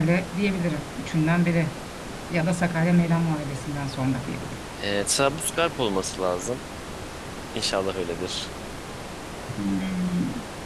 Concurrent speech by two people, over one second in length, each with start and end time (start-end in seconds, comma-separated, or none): none